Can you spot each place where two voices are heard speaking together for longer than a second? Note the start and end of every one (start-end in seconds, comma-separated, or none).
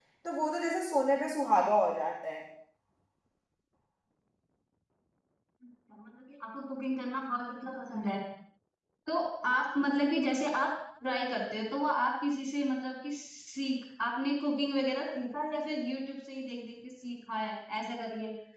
none